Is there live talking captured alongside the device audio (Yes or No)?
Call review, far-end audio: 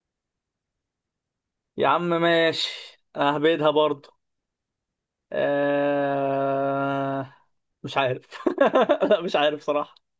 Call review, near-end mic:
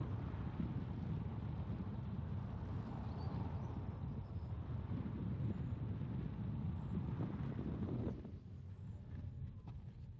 No